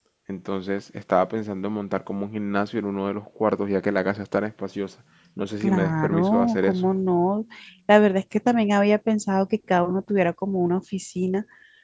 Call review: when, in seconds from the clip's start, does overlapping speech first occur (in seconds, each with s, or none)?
5.6 s